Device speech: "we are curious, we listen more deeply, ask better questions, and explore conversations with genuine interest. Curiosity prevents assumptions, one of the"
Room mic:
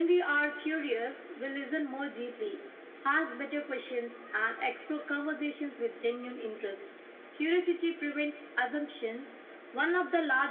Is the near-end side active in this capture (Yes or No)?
No